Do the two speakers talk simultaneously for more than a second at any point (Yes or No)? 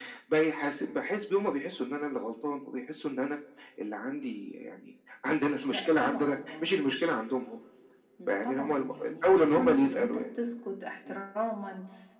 Yes